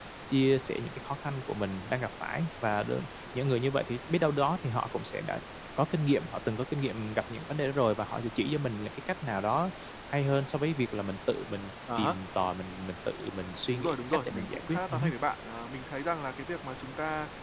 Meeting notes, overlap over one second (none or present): present